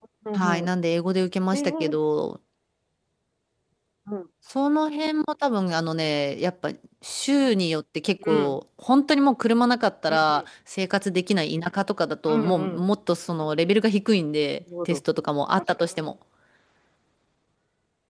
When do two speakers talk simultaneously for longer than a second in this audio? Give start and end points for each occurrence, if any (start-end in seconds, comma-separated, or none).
none